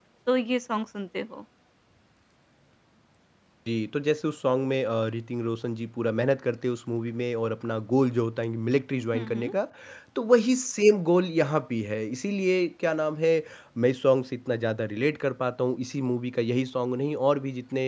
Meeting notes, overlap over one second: none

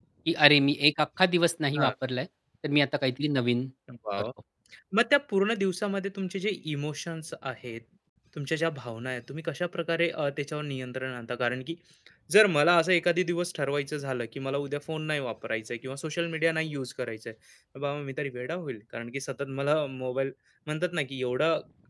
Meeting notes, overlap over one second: none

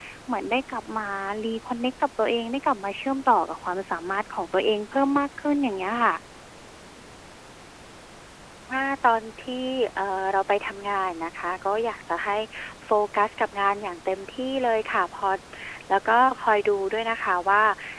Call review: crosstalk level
none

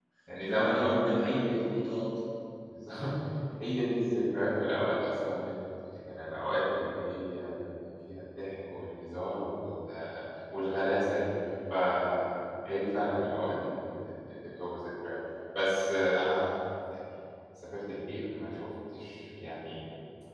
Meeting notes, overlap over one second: present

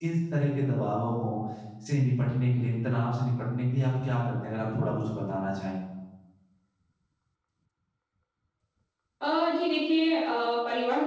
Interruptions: none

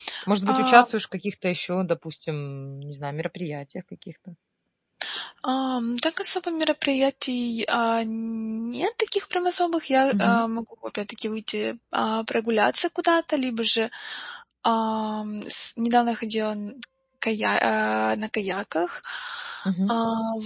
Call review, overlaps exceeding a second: none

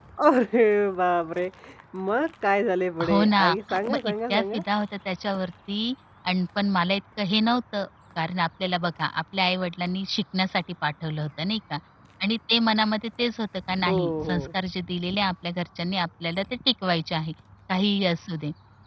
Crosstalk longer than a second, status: present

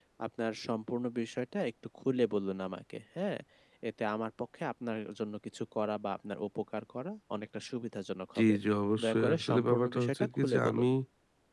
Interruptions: present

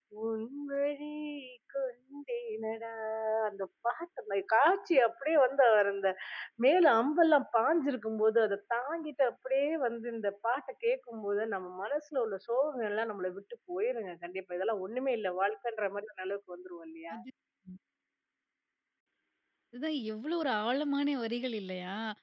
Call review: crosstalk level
none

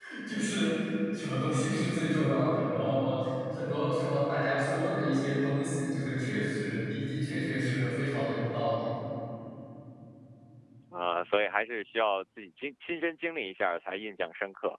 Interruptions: none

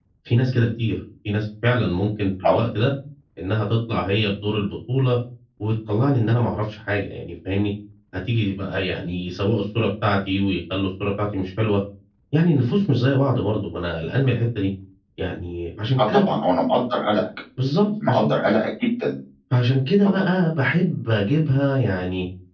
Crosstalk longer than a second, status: none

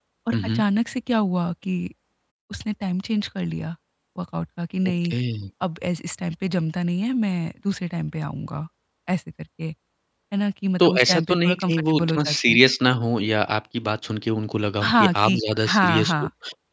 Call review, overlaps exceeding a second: present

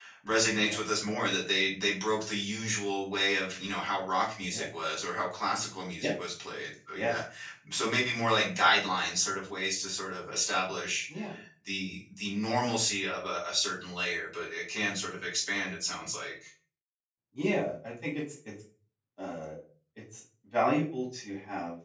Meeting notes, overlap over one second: none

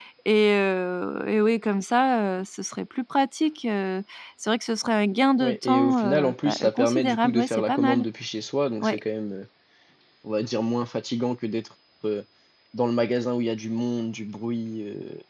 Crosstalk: present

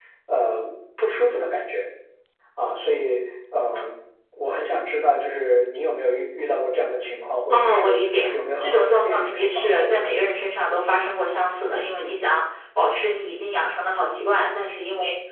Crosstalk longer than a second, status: present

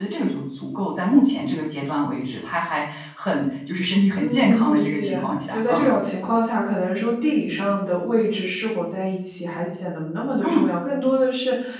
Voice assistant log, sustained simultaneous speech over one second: present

